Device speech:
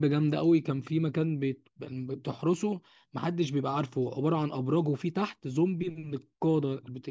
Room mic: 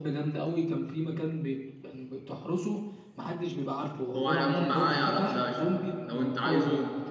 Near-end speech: present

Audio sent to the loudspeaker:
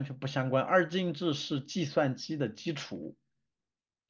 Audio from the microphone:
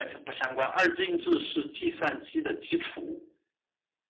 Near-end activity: none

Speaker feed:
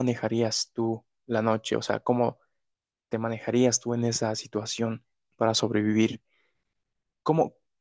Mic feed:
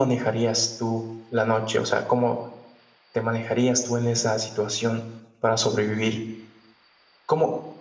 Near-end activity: none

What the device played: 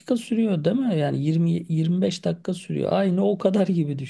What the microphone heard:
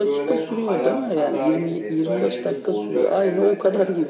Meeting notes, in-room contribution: present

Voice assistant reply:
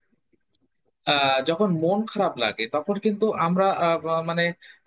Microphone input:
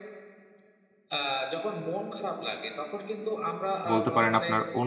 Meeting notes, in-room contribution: present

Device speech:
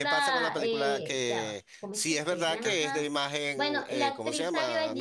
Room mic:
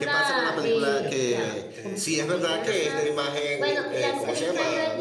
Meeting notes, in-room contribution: present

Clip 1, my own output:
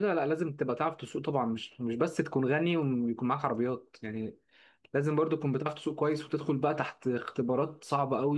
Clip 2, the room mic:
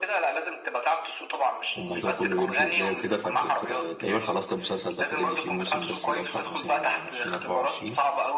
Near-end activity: present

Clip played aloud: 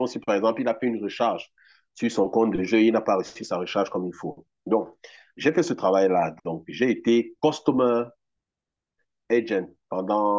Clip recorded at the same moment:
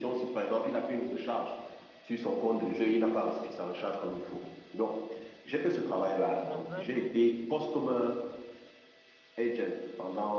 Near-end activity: present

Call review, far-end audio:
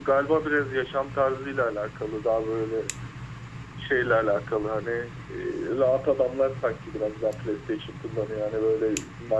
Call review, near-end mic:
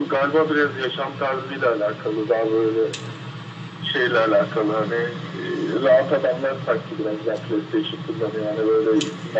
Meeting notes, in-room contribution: none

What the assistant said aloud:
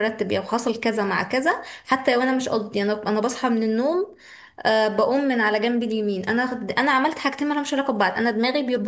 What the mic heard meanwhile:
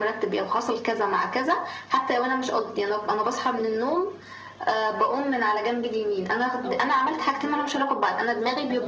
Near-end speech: present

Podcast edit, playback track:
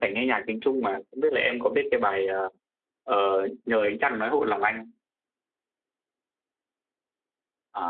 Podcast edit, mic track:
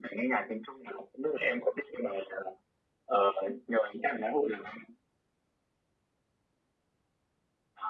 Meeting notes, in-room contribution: none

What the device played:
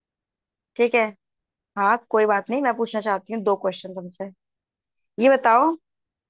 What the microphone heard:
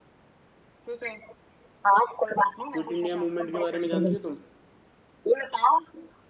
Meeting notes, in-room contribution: present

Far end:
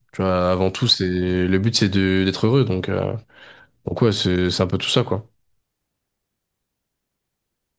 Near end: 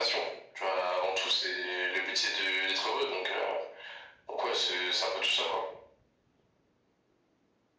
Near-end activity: none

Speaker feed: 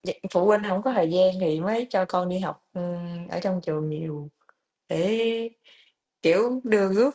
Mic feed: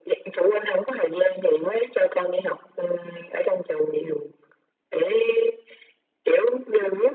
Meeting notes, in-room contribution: none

